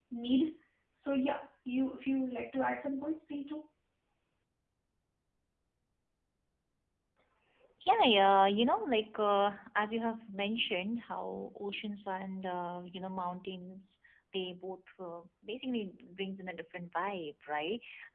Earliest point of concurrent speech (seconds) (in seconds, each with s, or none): none